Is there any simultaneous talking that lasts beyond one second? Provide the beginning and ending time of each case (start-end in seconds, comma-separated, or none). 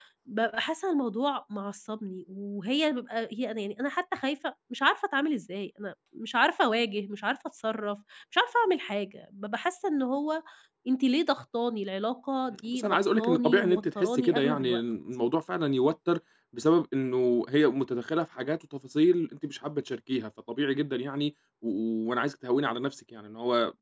12.7-14.8